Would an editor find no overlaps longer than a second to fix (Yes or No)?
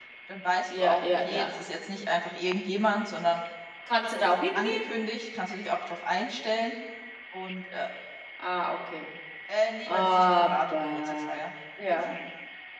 No